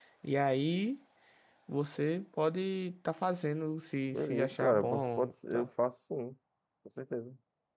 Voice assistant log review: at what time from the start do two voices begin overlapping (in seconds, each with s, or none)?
4.1 s